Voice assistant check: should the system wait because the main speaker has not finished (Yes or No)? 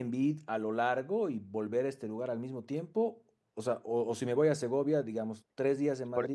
No